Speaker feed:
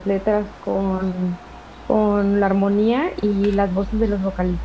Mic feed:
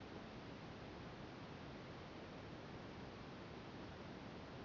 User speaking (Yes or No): No